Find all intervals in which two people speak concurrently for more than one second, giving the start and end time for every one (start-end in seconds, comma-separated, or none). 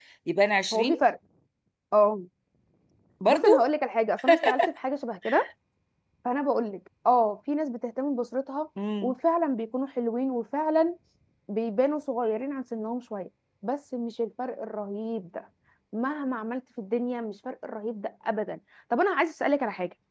none